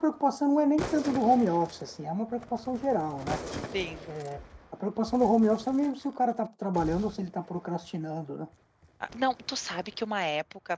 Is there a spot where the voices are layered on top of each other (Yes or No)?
No